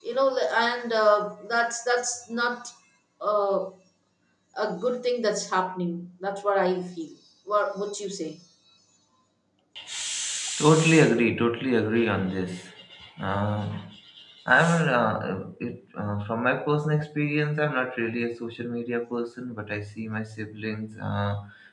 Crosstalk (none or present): none